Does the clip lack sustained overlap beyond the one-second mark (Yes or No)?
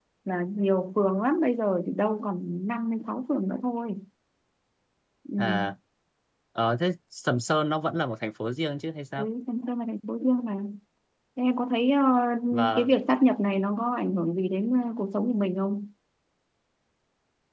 Yes